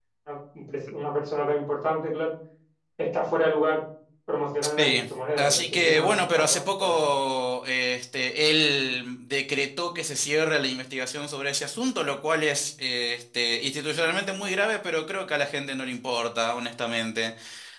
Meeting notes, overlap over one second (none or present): present